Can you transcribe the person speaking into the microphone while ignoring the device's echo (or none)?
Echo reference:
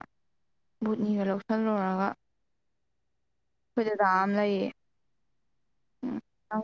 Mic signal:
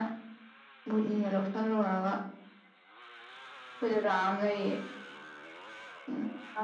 none